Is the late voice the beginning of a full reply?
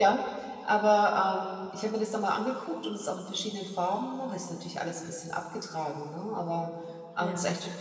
No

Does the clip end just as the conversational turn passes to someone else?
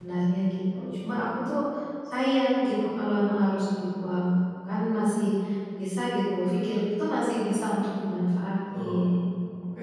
Yes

